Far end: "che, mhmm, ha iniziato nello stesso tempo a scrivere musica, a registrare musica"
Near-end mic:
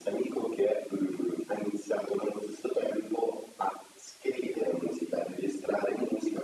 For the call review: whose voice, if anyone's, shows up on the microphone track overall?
echo only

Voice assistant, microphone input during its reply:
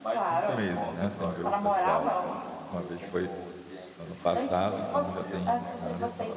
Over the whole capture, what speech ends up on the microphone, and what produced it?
both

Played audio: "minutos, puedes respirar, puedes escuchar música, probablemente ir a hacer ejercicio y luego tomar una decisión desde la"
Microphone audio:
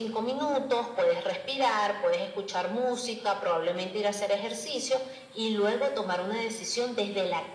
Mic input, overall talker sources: echo only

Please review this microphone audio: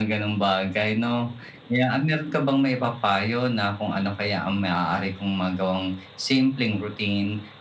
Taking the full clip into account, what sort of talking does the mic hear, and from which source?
echo only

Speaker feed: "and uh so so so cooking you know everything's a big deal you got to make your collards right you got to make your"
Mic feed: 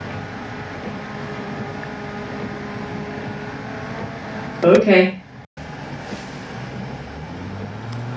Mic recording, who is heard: user only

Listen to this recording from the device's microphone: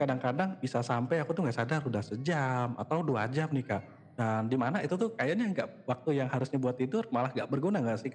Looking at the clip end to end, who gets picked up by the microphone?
echo only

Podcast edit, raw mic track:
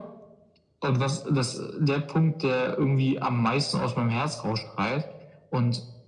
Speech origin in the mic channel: echo only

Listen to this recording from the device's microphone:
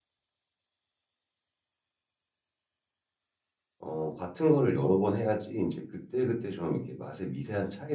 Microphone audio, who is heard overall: user only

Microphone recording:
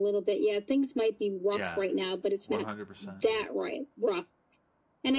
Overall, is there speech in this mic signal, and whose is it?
both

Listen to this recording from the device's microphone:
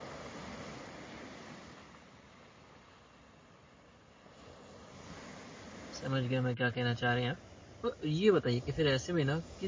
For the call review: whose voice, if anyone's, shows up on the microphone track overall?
user only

